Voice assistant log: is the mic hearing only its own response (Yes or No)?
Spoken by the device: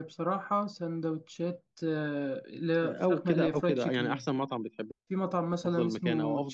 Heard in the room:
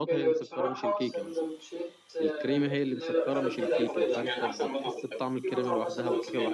No